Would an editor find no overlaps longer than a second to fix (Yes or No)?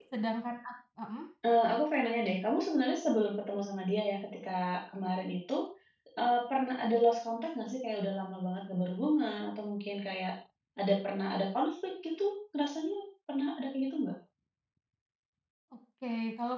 Yes